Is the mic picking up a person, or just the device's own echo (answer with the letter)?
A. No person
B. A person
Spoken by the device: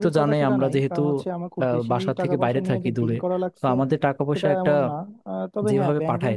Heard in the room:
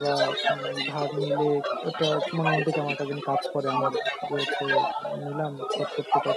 B